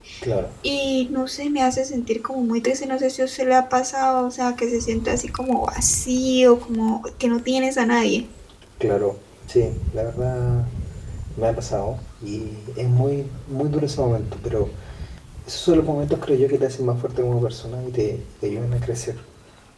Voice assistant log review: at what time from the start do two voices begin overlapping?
none

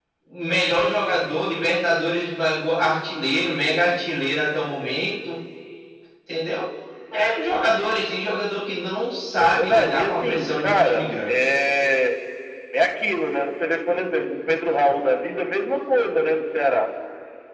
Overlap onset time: 9.4 s

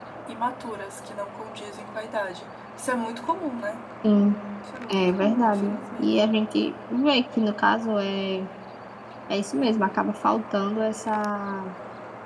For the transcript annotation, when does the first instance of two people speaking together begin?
4.9 s

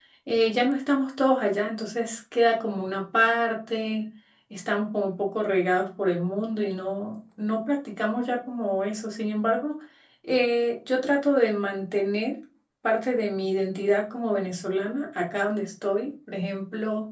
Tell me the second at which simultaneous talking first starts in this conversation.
none

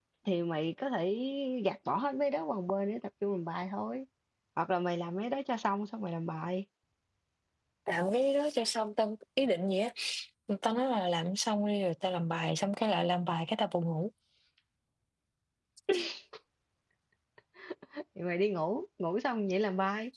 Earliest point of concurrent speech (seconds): none

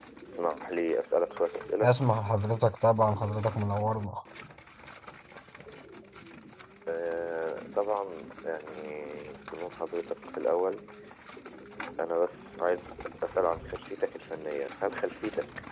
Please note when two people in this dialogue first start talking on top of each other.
none

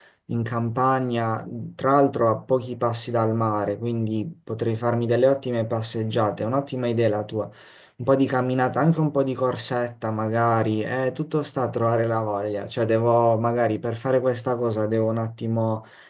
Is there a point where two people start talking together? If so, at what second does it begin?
none

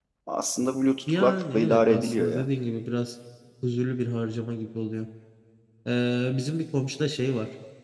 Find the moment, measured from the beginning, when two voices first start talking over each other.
1.1 s

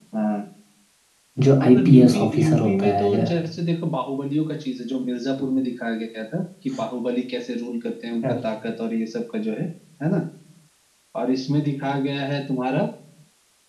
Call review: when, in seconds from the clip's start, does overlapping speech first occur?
1.6 s

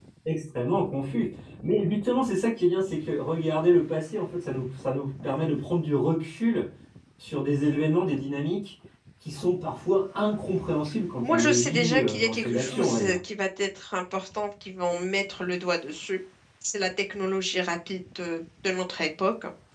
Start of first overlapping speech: 11.2 s

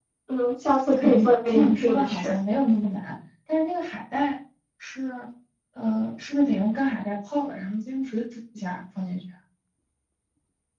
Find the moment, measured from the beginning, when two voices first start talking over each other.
0.9 s

